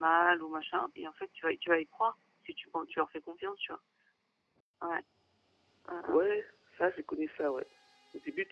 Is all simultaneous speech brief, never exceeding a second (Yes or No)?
Yes